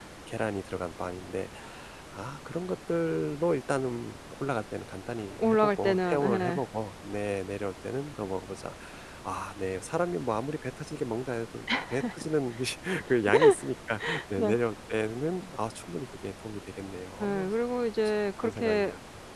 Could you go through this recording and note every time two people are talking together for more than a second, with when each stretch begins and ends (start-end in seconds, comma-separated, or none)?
5.4-6.6